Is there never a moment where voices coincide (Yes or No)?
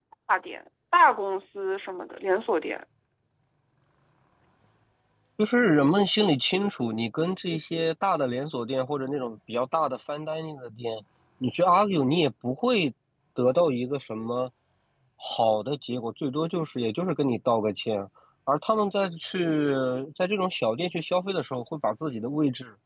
Yes